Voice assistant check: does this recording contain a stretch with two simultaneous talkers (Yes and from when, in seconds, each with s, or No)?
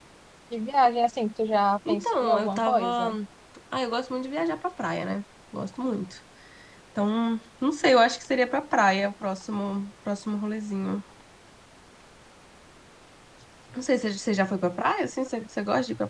Yes, from 1.8 s